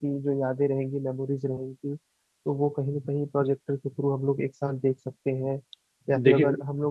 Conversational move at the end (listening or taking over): listening